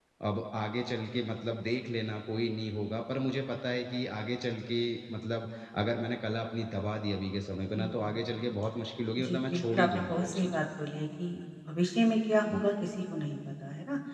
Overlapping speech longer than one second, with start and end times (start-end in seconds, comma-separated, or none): 9.2-10.6